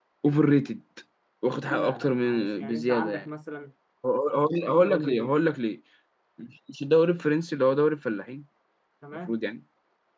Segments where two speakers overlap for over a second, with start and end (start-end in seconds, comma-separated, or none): 1.7-3.2